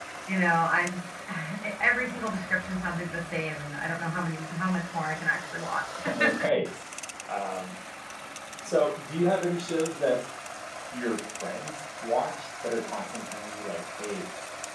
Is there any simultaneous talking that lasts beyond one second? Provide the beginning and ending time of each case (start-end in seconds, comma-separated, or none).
none